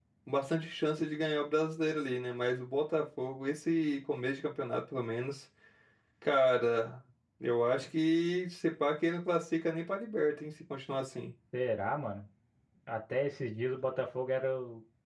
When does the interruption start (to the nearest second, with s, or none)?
none